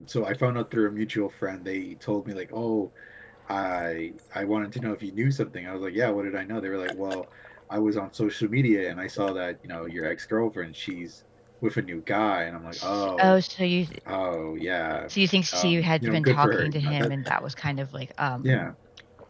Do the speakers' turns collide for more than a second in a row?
Yes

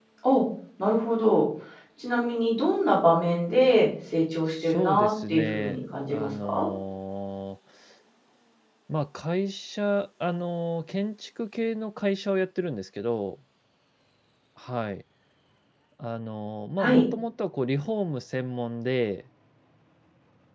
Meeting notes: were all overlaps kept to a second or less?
No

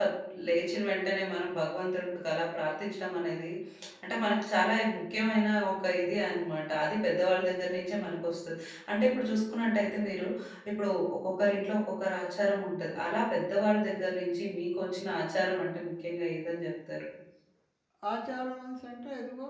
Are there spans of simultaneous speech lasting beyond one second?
No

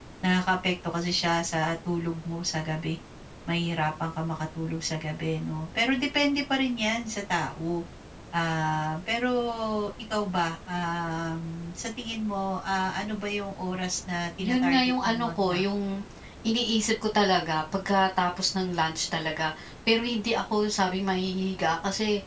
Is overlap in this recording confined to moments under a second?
No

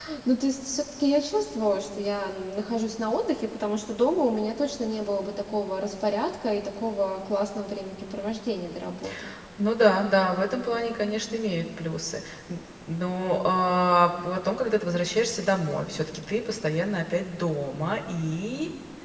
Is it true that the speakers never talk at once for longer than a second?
Yes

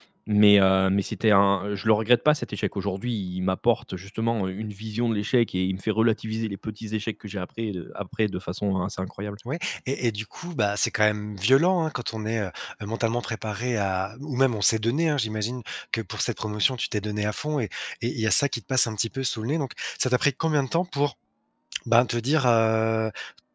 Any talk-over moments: No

